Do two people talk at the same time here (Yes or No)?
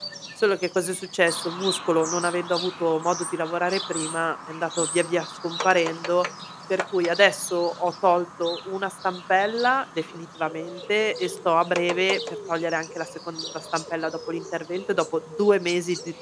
No